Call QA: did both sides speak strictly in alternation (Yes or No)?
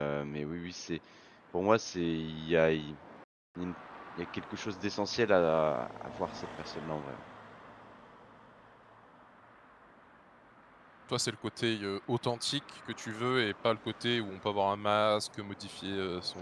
Yes